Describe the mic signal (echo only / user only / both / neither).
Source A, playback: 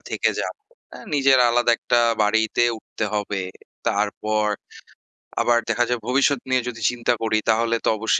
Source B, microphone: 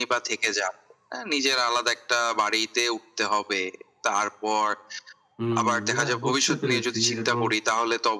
both